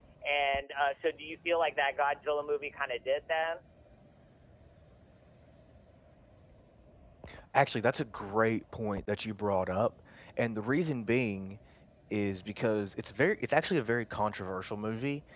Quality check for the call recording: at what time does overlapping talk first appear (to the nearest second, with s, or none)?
none